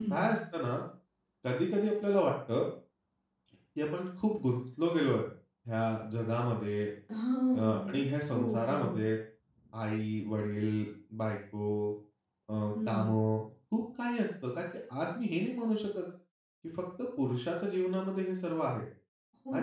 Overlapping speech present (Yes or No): Yes